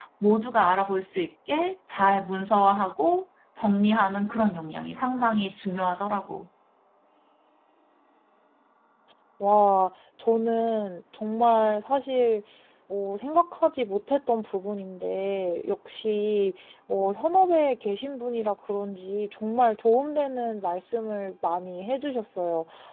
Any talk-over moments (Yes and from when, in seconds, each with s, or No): No